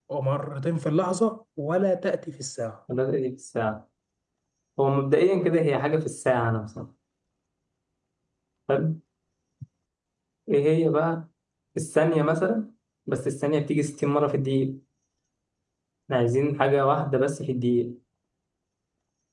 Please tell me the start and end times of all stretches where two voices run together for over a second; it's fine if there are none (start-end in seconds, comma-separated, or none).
none